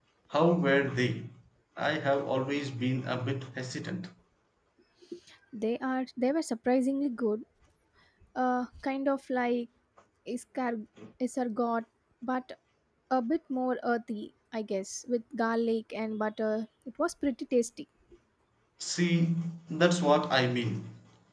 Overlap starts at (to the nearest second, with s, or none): none